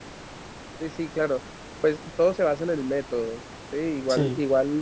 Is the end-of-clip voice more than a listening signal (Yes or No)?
No